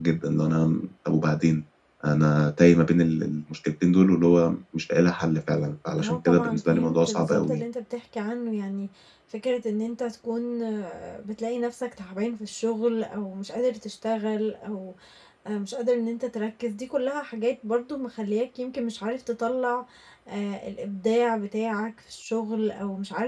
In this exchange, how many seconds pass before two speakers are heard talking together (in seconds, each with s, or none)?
6.0 s